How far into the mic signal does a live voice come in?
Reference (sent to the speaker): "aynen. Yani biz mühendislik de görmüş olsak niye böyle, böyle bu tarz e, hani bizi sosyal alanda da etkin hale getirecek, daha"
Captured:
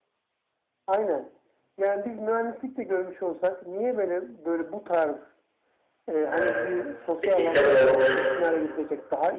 6.3 s

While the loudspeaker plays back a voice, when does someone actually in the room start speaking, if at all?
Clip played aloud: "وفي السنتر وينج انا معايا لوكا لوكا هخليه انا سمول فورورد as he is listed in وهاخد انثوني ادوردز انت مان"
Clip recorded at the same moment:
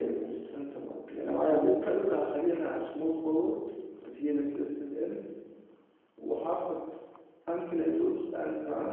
none

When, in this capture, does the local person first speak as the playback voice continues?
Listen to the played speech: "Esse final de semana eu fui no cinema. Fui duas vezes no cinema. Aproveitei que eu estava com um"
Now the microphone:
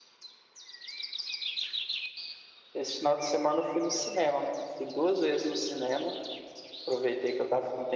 none

